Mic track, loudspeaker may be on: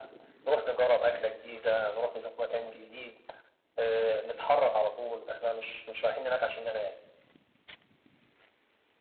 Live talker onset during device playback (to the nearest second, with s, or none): none